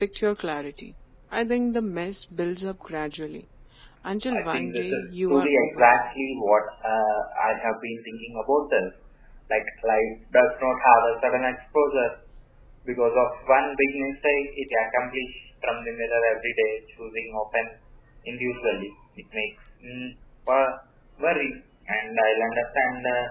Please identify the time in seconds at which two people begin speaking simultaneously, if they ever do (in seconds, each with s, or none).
4.3 s